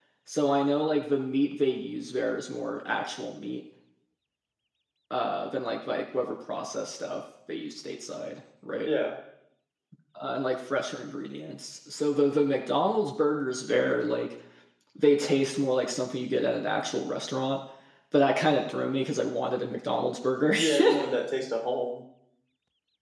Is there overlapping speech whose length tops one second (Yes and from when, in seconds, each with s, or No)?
No